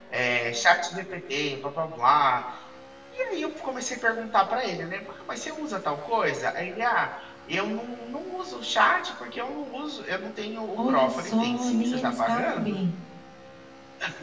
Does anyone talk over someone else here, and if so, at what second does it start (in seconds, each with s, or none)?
10.8 s